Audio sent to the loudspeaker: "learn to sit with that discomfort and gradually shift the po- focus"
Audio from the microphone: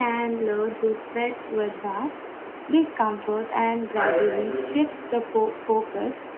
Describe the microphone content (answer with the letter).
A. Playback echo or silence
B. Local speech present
B